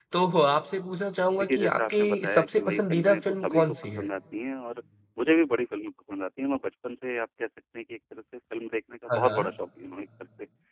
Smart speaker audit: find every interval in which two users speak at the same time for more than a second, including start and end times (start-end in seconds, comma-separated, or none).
1.4-4.1